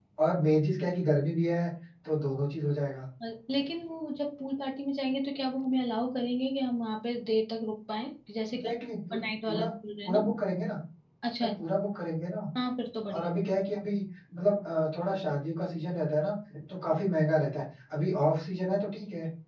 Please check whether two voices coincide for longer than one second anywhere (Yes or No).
No